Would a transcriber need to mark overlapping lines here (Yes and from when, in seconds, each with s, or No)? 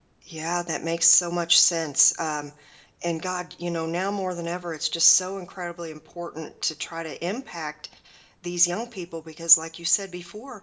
No